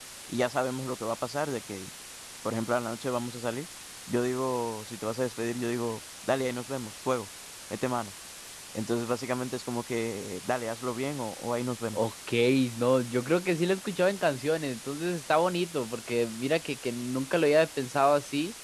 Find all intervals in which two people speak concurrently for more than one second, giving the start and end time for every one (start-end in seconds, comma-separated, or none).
none